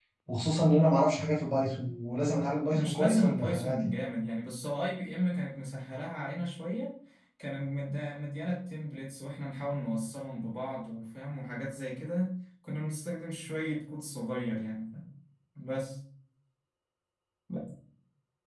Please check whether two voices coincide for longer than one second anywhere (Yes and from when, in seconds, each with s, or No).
Yes, from 2.7 s